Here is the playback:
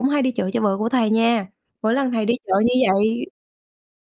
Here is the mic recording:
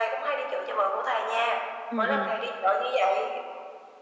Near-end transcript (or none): Ừm, ừm.